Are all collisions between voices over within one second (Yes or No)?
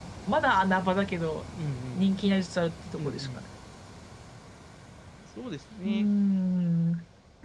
Yes